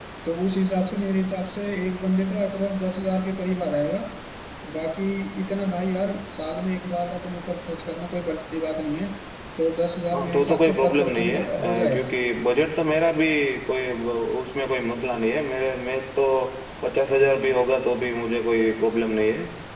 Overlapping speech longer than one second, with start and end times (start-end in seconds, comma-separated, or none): 10.1-12.1